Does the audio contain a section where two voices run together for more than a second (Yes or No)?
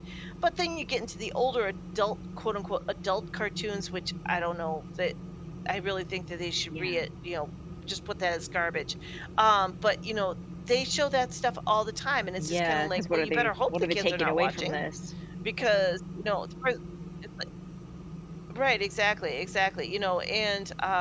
Yes